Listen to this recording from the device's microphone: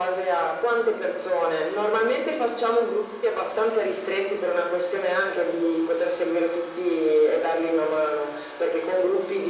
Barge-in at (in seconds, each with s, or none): none